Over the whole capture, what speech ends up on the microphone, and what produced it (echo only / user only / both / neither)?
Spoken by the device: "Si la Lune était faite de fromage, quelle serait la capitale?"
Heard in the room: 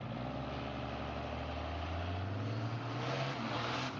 neither